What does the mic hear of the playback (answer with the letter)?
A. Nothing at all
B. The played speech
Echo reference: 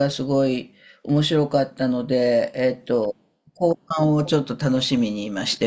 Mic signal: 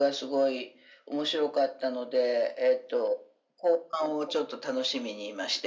B